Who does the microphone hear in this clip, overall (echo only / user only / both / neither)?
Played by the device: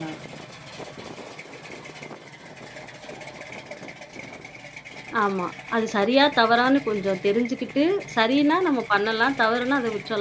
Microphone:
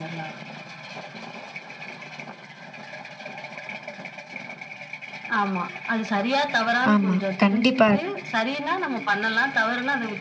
both